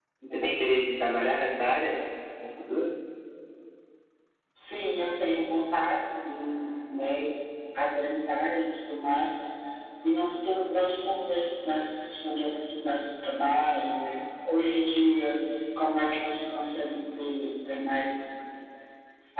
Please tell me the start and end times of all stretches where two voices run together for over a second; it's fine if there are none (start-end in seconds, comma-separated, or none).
none